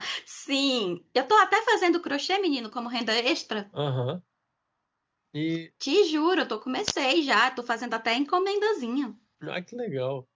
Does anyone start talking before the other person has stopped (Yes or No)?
No